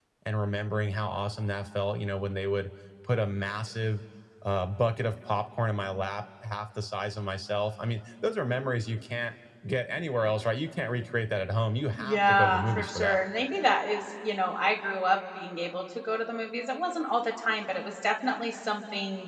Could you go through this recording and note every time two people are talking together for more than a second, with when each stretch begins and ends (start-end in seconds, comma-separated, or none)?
12.0-13.2